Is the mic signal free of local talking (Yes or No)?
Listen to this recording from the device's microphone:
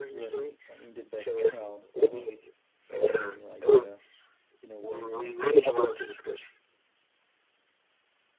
No